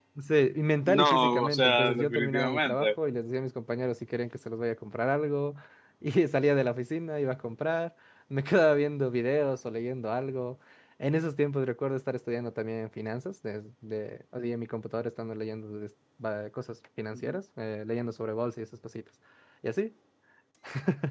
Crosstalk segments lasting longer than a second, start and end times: 0.8-2.9

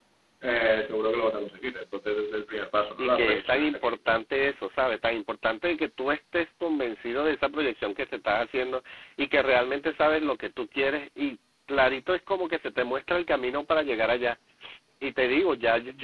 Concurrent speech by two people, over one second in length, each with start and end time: 3.0-4.2

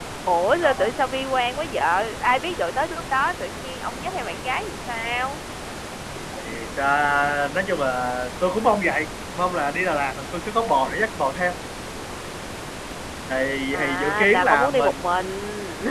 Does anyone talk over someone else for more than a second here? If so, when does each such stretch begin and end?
13.7-15.1

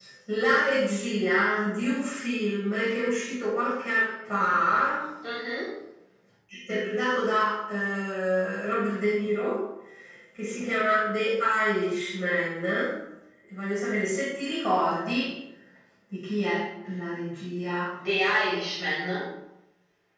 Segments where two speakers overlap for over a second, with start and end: none

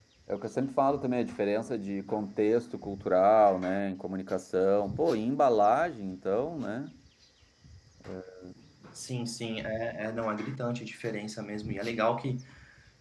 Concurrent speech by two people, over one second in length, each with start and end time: none

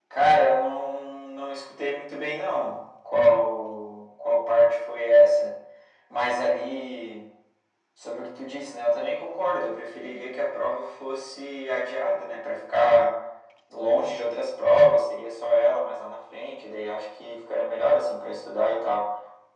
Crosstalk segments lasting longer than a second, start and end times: none

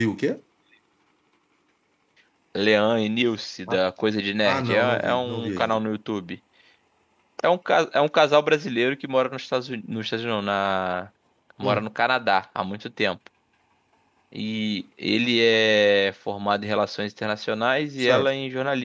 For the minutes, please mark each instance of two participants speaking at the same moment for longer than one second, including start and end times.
4.4-5.8

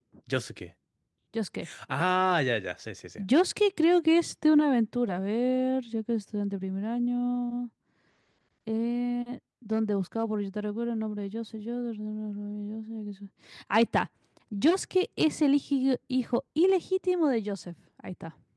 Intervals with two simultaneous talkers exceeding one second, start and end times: none

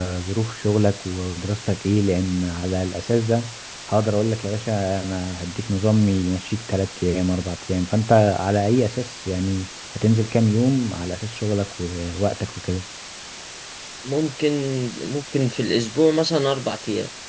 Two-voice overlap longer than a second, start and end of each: none

